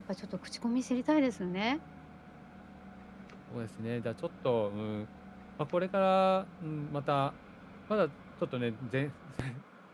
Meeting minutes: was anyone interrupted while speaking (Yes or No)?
No